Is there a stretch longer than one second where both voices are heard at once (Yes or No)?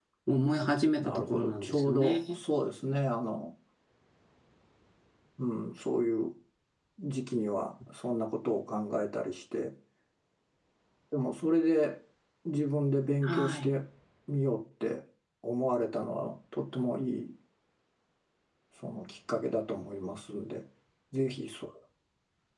Yes